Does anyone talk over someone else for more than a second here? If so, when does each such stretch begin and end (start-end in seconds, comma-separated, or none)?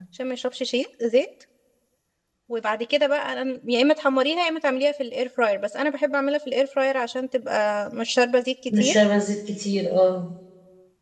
none